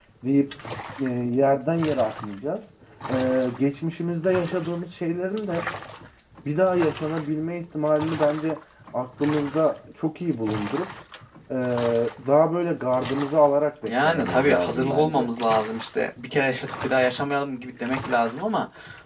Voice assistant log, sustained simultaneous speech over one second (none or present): present